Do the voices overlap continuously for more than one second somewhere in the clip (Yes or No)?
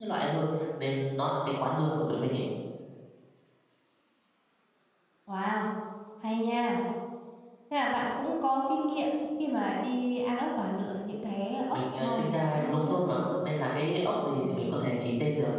Yes